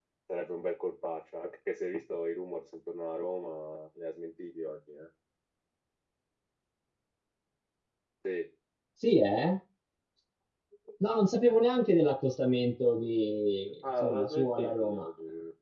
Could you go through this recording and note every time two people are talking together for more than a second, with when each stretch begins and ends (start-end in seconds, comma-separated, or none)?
13.8-15.1